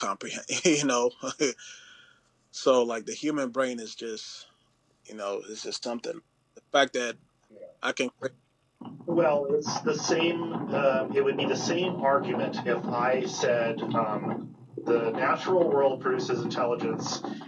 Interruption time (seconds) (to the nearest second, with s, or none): none